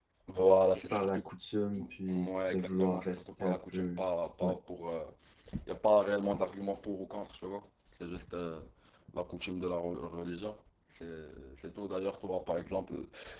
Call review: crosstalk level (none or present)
present